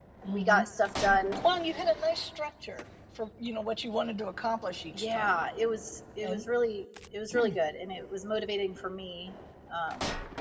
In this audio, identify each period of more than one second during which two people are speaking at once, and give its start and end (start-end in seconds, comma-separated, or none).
none